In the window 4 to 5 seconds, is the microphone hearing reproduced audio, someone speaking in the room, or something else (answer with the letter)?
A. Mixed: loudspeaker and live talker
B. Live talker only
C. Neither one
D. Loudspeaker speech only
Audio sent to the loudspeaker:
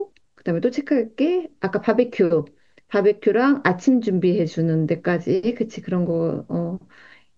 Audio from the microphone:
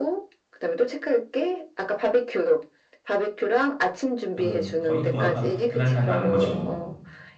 A